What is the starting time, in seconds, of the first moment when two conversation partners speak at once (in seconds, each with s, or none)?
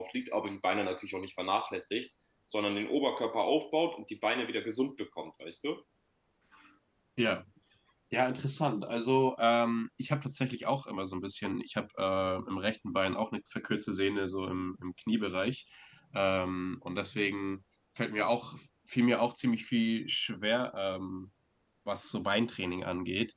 none